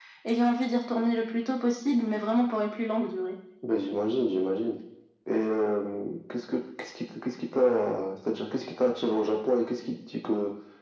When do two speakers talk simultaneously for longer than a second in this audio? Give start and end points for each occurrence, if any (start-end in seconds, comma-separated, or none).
none